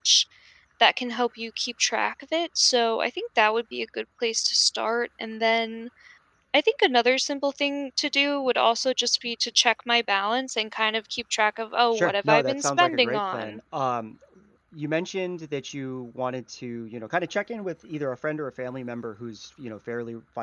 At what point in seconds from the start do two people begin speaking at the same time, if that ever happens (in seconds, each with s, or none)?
11.9 s